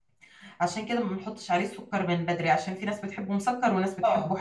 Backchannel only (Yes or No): No